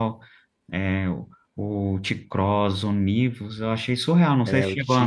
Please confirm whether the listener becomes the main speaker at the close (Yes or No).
Yes